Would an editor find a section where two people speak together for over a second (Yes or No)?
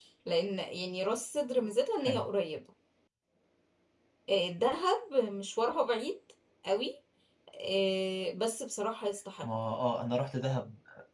No